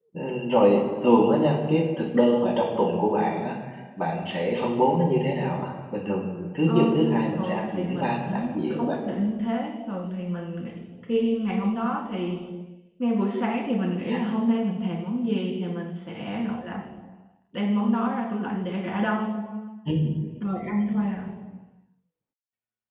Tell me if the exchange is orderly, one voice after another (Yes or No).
No